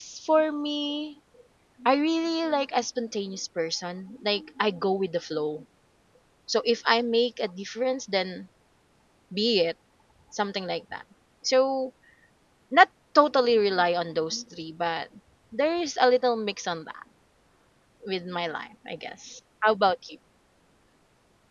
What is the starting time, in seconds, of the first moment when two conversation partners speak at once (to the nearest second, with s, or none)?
none